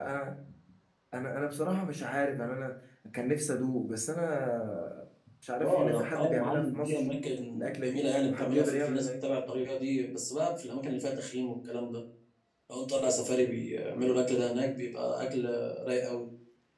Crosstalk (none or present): present